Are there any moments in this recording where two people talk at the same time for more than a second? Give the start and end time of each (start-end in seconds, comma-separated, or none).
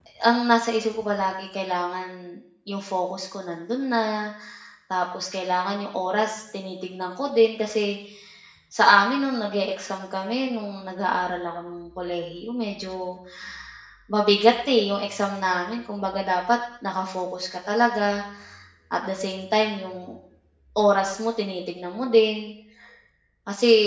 none